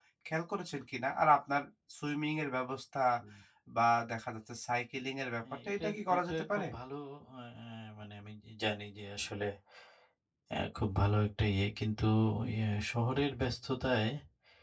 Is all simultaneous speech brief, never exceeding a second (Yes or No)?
No